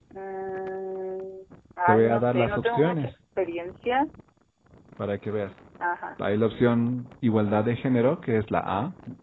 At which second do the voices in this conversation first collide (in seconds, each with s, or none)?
1.9 s